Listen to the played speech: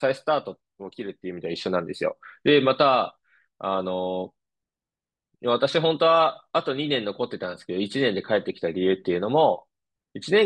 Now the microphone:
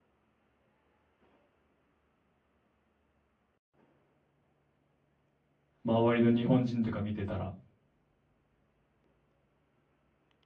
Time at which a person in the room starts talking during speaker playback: 5.8 s

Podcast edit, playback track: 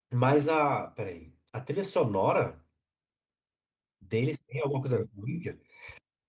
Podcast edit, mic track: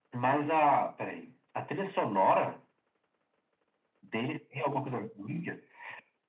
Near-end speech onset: none

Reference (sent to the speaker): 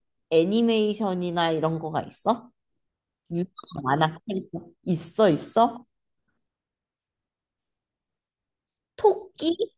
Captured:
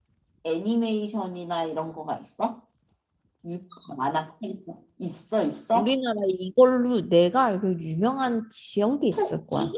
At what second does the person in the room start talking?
5.7 s

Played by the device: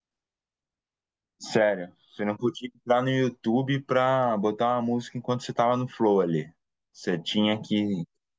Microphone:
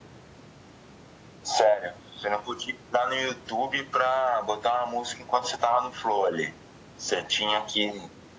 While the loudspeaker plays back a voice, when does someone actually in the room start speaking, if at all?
none

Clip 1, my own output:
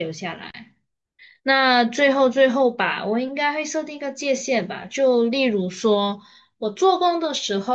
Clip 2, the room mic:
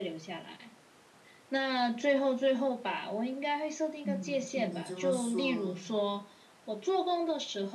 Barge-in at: 4.0 s

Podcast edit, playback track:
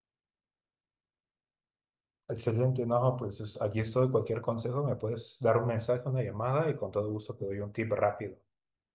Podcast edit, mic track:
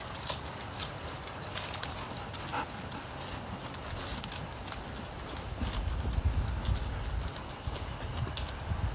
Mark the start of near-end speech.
none

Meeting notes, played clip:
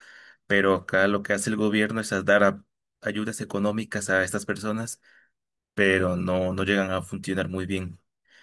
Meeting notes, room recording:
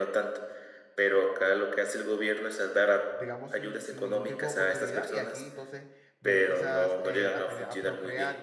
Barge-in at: 3.1 s

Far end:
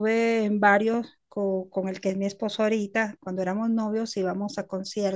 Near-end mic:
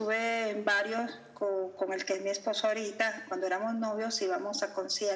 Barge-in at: none

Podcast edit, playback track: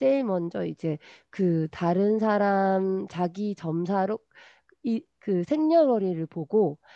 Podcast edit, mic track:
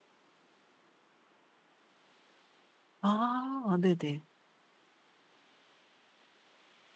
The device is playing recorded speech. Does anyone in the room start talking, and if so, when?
3.0 s

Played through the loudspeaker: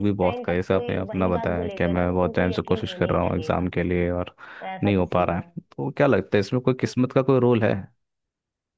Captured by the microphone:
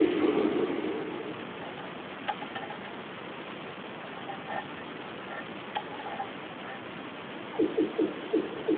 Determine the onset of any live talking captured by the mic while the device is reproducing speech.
none

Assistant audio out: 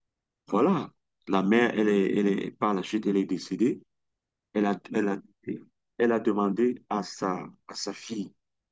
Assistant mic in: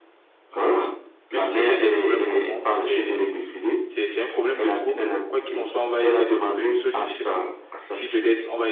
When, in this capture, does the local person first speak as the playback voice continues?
1.3 s

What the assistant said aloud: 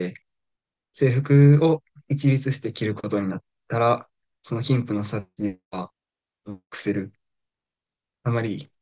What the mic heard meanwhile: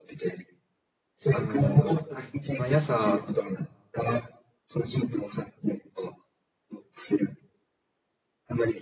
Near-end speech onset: 1.3 s

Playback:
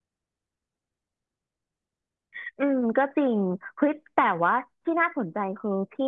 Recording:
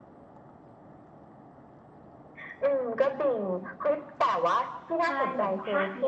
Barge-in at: 5.0 s

